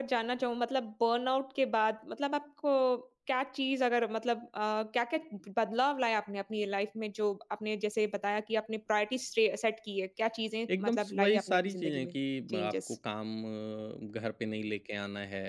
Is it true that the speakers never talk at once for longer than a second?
No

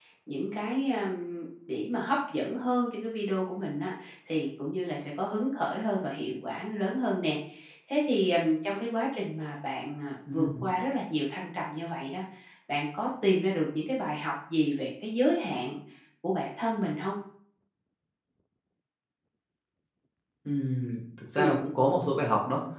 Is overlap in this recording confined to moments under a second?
Yes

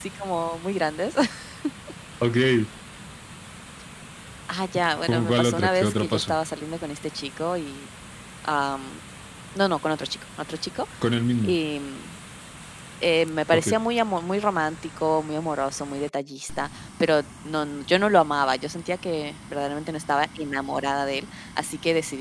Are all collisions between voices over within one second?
No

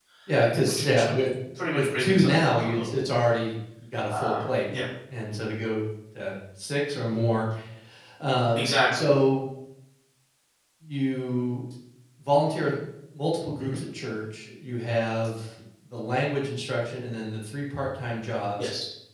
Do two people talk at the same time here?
Yes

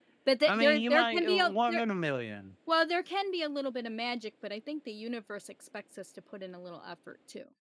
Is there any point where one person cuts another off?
Yes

